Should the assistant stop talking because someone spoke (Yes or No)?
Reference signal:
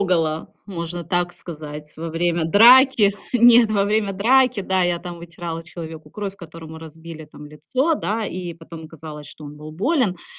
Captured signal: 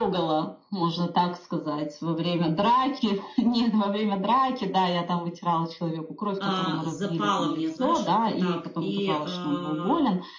Yes